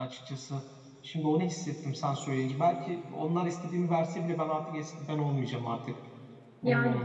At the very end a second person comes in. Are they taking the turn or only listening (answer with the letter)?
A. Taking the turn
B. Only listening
A